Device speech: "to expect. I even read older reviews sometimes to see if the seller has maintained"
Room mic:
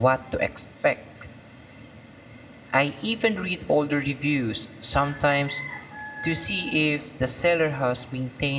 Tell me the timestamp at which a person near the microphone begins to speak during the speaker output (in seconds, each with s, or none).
none